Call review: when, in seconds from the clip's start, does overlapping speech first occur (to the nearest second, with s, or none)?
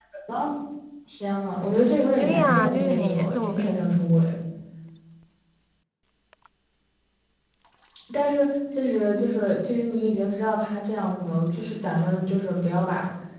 2 s